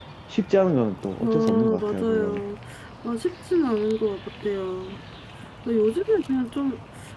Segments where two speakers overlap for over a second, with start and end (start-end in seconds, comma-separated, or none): 1.2-2.4